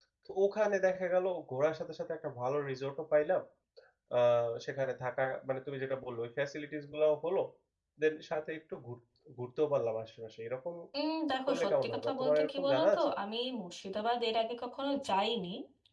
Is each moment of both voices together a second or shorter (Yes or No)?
No